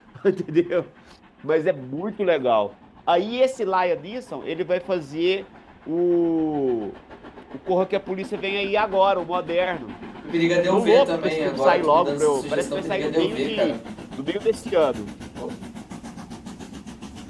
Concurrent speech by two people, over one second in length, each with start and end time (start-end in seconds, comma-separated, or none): 10.7-13.8